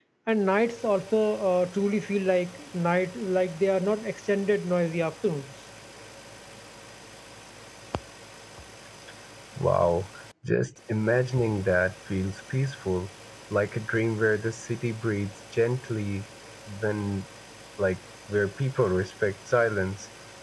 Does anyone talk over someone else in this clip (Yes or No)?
No